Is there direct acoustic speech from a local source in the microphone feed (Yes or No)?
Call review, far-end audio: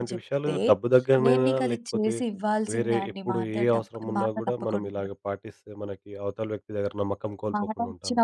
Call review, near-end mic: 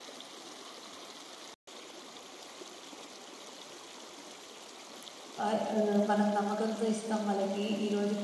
Yes